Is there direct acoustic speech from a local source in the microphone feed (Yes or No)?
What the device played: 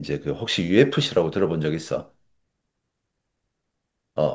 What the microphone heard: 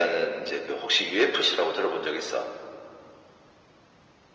No